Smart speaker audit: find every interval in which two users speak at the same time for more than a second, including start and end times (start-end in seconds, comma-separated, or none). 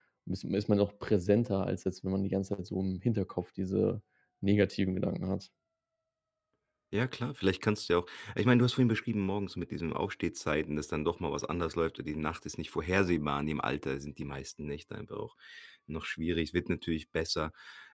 none